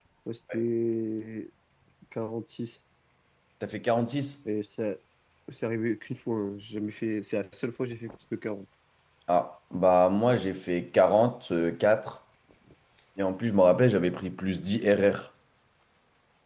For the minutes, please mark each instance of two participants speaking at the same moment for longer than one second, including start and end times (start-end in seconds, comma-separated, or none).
none